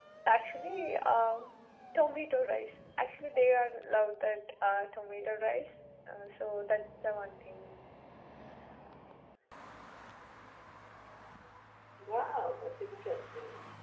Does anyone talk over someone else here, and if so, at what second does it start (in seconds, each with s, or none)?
none